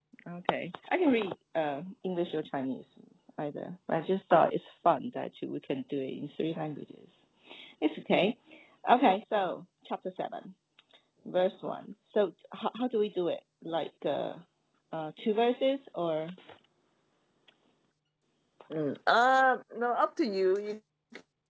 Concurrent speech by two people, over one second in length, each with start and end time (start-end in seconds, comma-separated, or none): none